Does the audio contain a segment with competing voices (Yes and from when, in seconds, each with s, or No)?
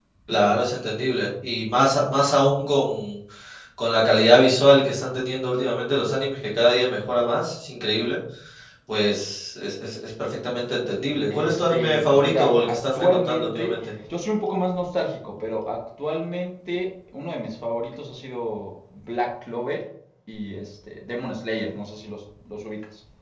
Yes, from 11.2 s